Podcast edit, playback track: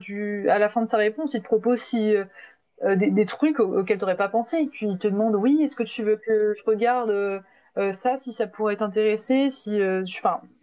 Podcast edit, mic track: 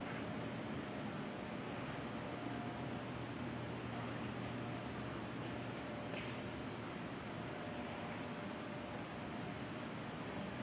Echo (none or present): none